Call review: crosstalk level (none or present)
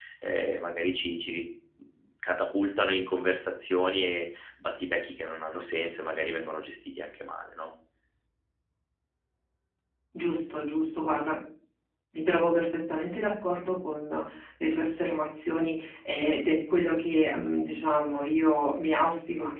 none